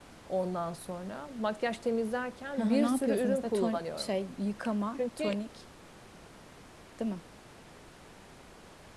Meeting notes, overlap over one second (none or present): present